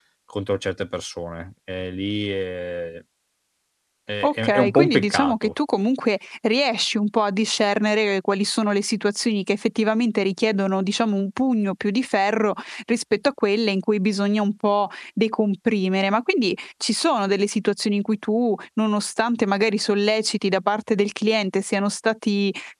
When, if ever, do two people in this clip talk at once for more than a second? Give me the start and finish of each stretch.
4.2-5.5

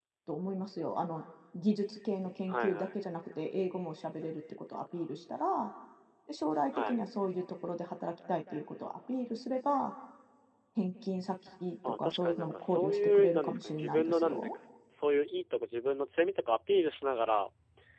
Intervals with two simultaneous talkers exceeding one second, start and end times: 12.0-14.6

